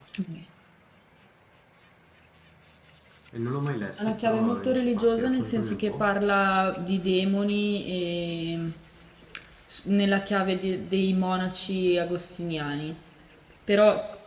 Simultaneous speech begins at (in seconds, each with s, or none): 4.0 s